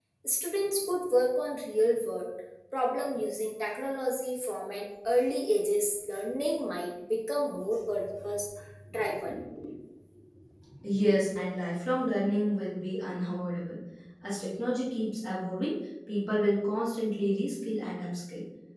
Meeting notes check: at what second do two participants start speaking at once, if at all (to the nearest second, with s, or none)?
none